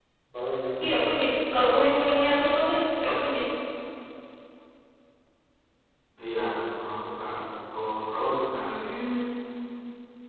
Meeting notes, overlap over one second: none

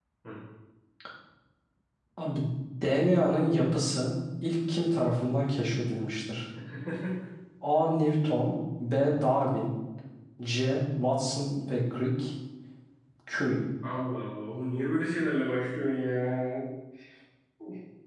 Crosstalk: none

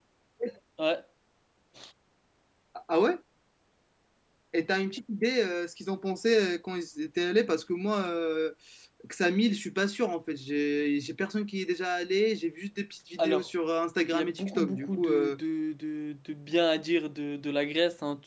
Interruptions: present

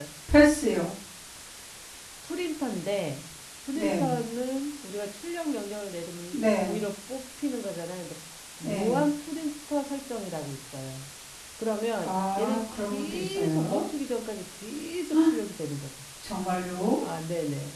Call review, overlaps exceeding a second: present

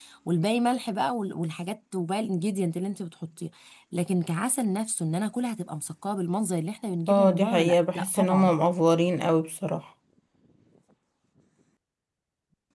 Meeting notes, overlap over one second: present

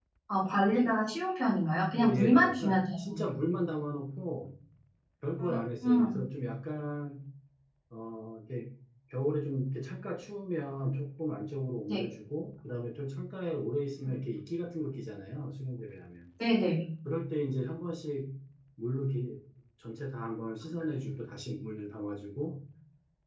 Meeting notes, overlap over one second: present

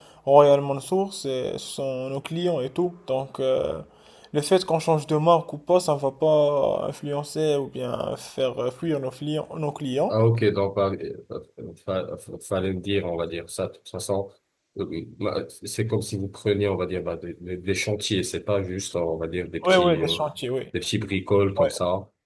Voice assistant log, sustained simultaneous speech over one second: none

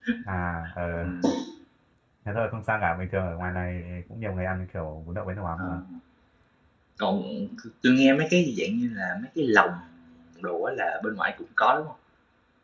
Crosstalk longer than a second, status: none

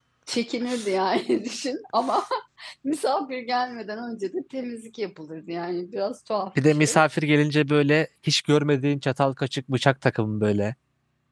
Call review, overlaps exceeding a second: none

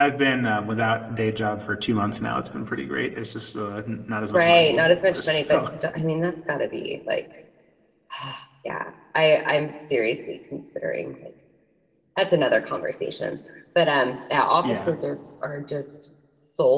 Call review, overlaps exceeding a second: present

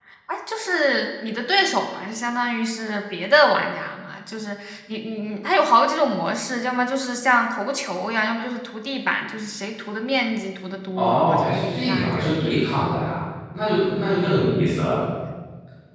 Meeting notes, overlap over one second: present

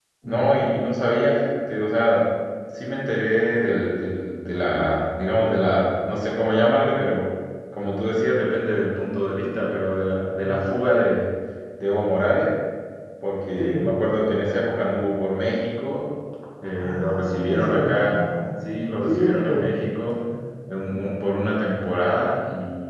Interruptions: present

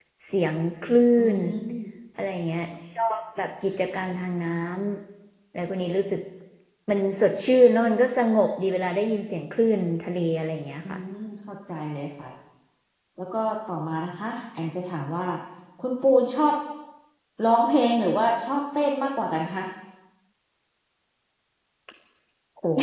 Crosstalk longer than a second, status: none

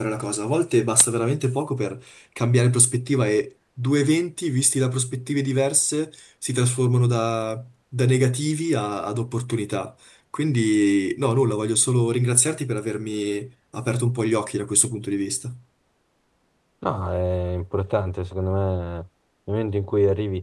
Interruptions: none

